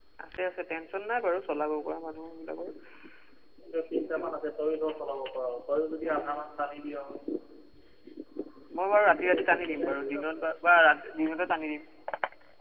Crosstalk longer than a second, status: present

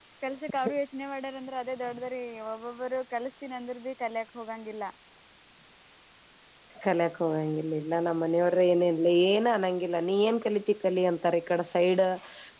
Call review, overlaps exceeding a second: none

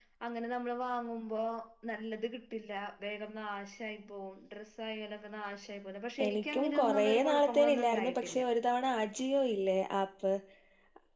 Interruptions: present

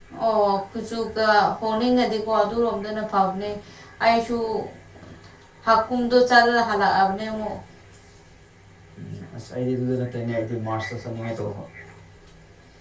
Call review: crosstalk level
none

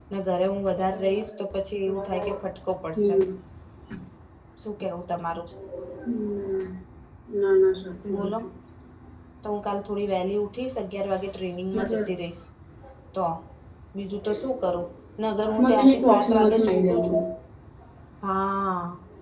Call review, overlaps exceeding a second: present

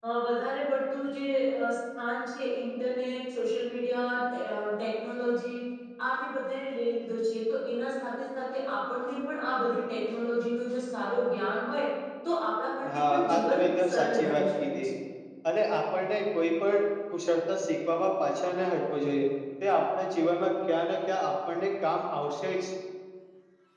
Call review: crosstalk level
present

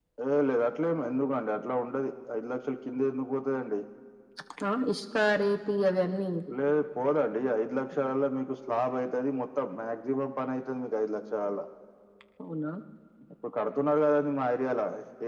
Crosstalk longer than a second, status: none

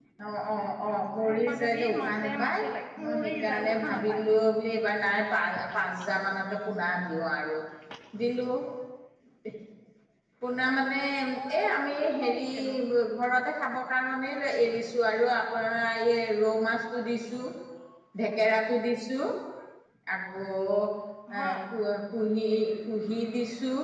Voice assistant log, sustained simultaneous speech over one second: present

